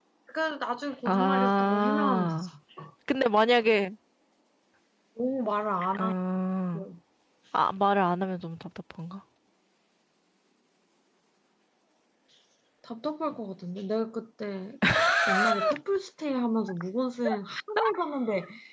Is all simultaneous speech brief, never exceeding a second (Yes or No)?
No